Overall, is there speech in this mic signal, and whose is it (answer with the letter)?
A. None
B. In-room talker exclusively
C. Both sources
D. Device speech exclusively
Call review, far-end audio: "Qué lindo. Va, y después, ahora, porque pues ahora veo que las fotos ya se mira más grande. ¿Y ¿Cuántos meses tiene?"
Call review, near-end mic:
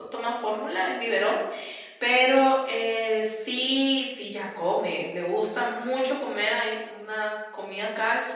B